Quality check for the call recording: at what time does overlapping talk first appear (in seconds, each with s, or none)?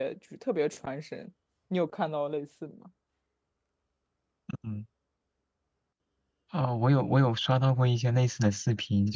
none